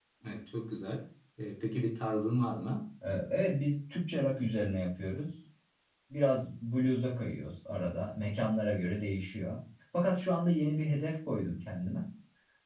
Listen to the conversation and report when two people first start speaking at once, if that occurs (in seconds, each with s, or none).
none